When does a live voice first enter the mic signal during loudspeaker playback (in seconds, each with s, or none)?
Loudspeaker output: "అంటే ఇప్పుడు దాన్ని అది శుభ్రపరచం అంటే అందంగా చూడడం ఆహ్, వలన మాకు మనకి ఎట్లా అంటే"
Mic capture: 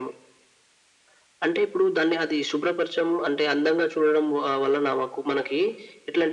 none